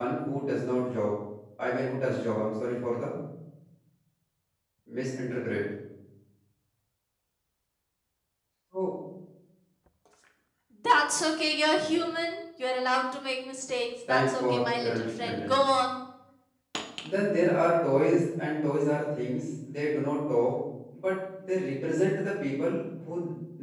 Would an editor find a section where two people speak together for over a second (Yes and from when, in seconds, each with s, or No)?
Yes, from 14.1 s